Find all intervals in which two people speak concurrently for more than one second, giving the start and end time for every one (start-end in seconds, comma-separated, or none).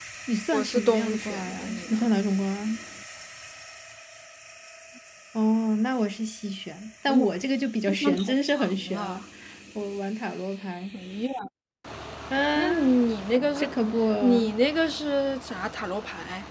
0.5-2.0, 7.9-9.2